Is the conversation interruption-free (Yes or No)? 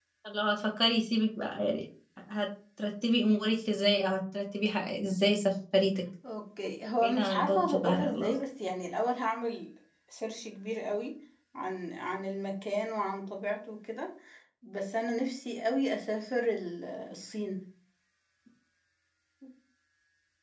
No